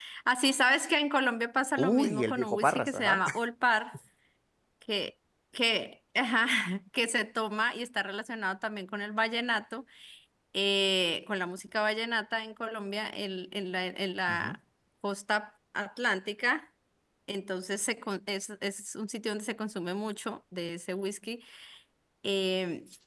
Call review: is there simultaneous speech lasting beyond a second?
Yes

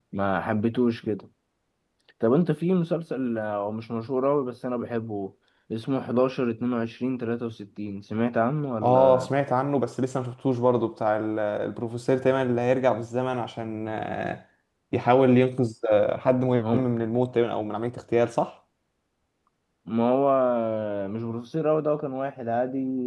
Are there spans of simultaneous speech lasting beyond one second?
No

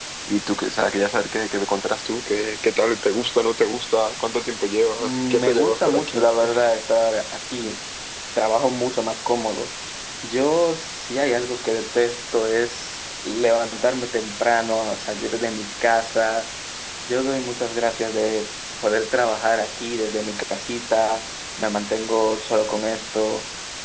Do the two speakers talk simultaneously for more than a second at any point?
Yes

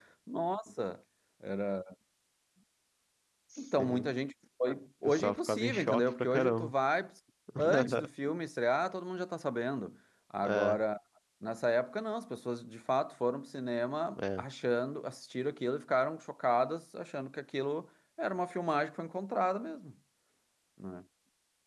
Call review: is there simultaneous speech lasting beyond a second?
Yes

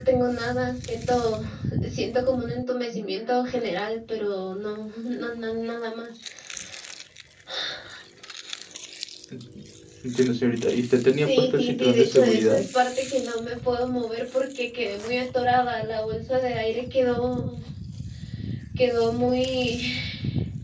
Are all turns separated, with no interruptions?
No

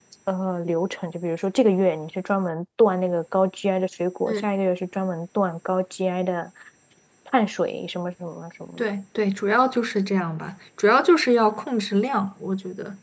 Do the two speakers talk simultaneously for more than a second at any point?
No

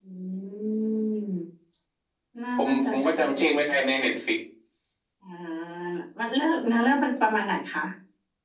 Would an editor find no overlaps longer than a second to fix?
No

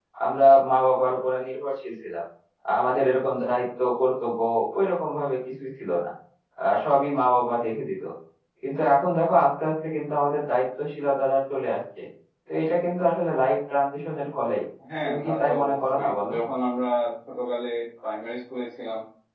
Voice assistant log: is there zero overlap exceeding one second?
No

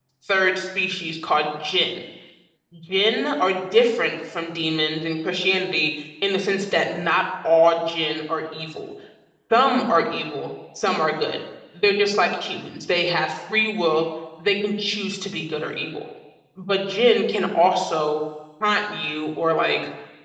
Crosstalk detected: No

